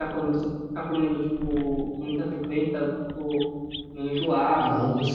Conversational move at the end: taking over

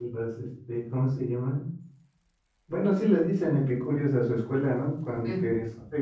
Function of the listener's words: listening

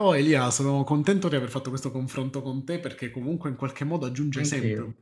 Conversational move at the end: listening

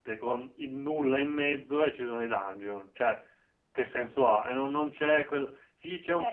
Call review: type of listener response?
taking over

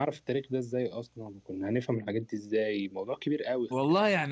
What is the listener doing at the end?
taking over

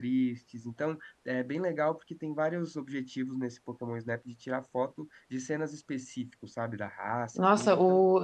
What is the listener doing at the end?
taking over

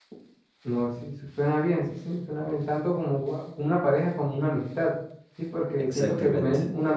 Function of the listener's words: listening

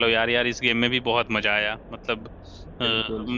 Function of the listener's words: listening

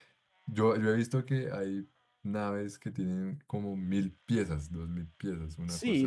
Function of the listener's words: taking over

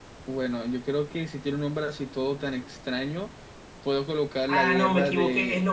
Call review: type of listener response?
taking over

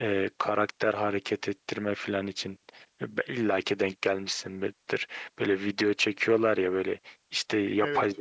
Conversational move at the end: listening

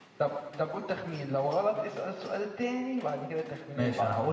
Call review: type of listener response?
taking over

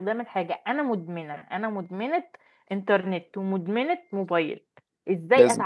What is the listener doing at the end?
listening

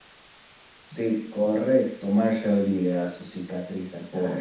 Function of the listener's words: taking over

